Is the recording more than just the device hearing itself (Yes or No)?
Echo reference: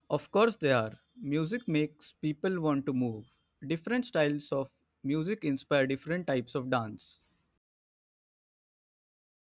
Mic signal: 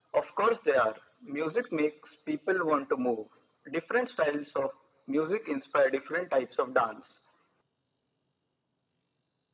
No